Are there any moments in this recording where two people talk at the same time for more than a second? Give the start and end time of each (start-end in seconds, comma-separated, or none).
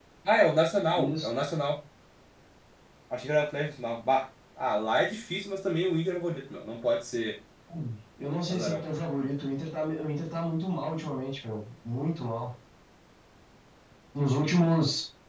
none